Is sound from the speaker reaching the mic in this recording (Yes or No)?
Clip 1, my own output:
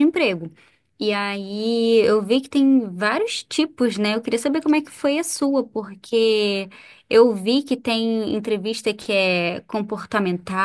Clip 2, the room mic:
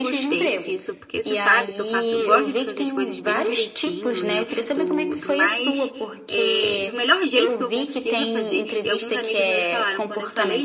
Yes